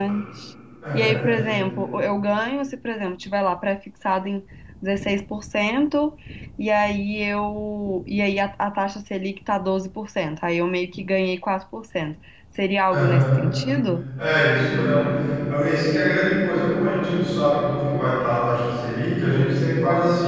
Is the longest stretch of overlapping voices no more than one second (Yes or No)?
Yes